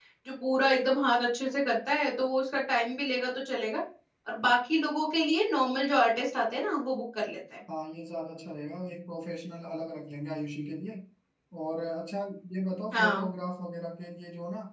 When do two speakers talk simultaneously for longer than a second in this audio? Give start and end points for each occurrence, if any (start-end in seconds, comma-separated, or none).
none